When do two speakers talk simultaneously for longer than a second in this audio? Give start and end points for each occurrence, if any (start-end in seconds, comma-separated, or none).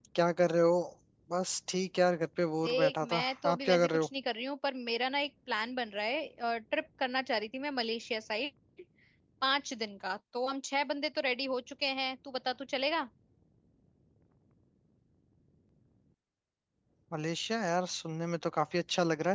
2.6-4.1